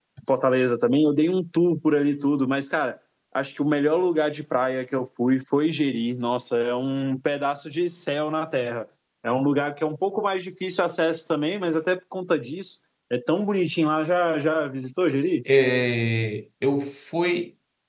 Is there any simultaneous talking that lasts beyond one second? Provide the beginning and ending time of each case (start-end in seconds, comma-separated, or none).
none